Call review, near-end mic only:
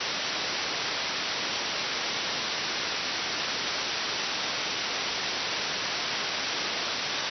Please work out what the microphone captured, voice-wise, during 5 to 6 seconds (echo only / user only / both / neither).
neither